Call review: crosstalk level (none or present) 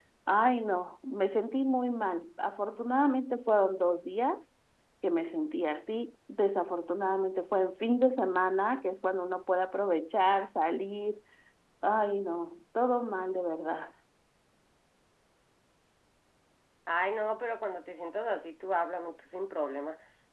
none